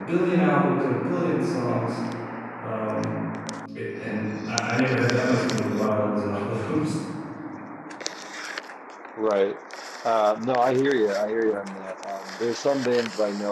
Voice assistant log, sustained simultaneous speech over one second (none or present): none